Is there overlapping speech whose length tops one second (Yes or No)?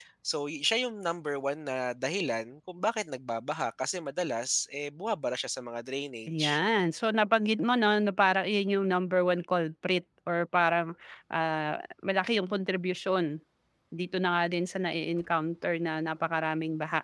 No